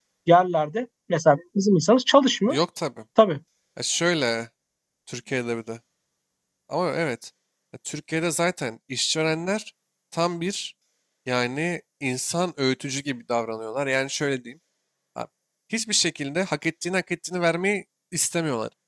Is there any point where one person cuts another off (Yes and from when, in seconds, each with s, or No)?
No